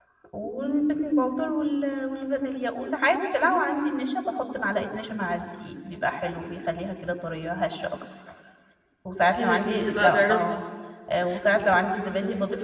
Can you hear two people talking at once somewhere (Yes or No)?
Yes